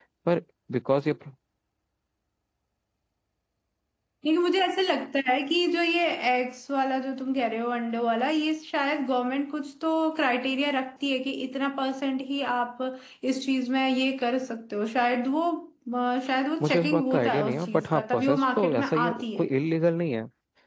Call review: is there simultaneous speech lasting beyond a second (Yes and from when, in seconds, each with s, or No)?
Yes, from 16.6 s